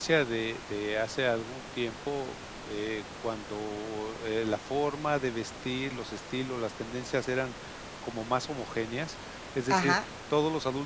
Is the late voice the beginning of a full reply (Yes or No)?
No